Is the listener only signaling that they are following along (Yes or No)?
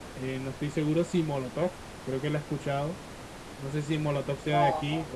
Yes